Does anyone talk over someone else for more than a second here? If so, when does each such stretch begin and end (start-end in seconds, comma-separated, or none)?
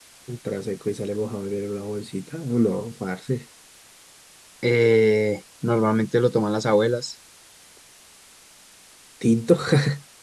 none